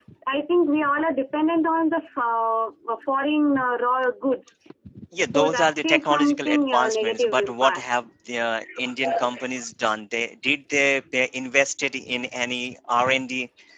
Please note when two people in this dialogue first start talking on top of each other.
5.3 s

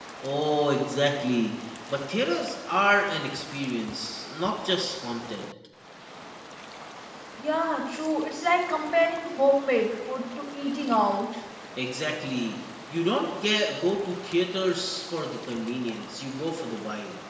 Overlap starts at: none

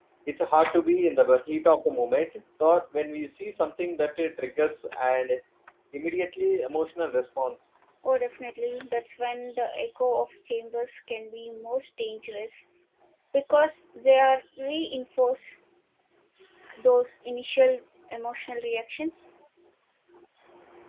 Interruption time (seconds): none

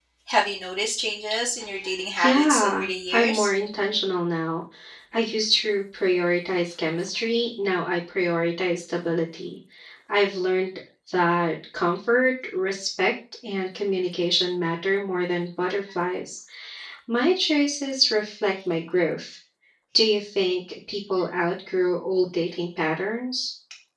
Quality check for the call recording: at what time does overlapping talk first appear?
2.2 s

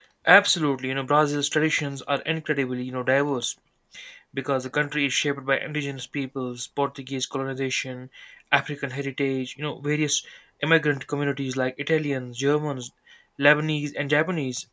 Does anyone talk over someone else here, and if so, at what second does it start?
none

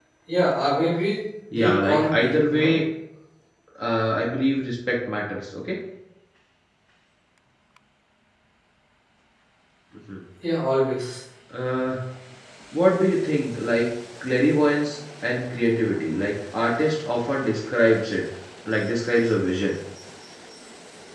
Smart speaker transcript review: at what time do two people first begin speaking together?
1.5 s

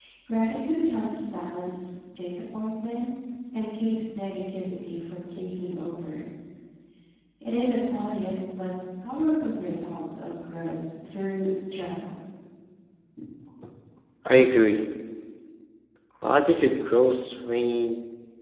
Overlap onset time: none

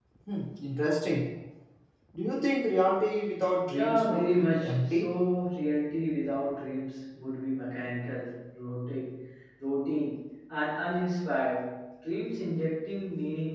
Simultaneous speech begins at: 3.7 s

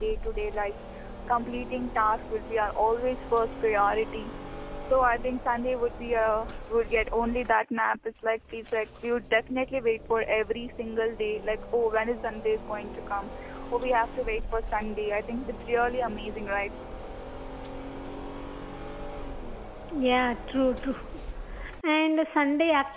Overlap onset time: none

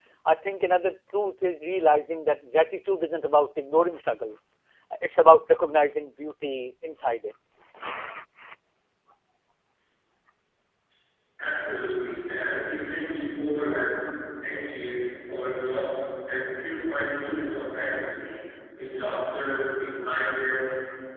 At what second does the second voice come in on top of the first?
none

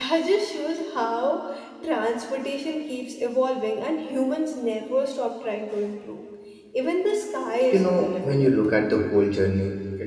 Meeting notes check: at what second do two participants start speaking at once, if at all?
7.7 s

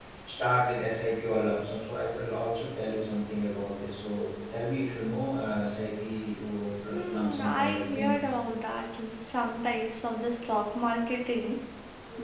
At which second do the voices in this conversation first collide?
6.9 s

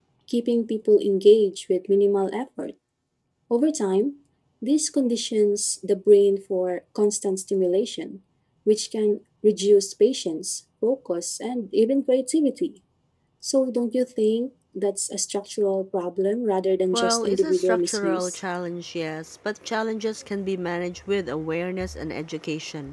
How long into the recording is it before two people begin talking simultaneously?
16.9 s

